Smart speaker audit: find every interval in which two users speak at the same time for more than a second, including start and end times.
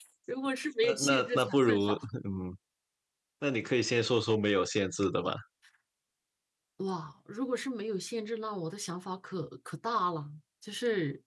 0.8-2.0

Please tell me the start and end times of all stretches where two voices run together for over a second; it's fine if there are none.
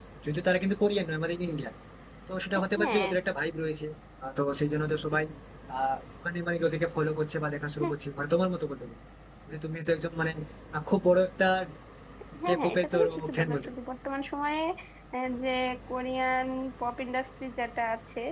12.5-13.8

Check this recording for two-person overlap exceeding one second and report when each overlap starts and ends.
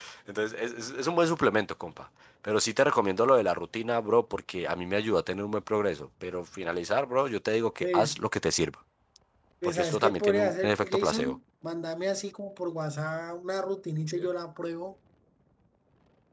9.6-11.3

